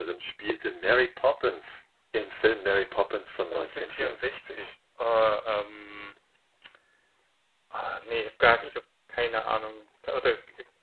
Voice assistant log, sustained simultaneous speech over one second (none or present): present